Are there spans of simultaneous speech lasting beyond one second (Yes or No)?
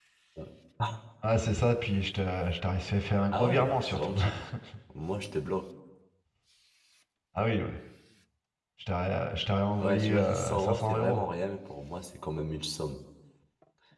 Yes